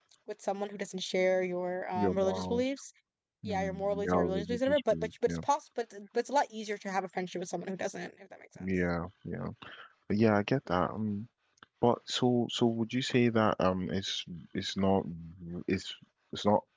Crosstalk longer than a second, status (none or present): present